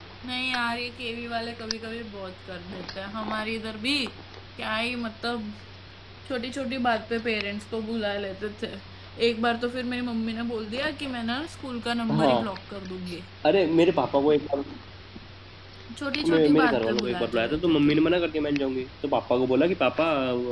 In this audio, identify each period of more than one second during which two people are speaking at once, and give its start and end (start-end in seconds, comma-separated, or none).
16.2-18.0